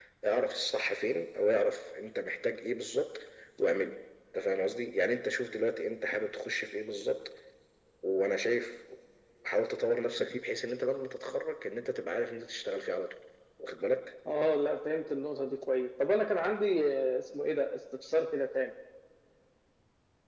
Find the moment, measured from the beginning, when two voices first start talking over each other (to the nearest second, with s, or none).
none